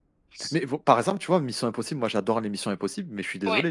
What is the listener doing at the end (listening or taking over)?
listening